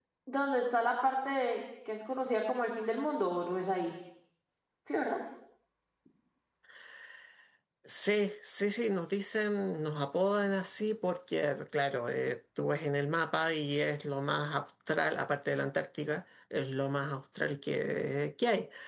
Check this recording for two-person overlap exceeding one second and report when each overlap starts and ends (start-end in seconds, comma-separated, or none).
none